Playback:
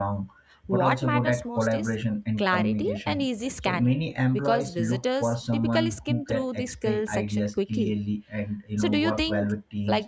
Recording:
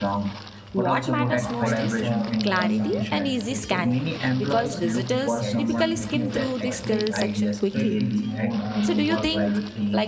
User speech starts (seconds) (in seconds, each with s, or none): 1.1 s